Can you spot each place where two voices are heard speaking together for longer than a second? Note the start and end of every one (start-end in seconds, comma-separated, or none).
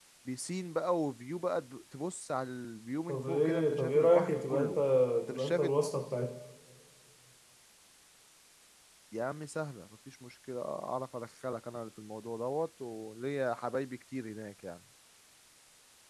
3.1-4.7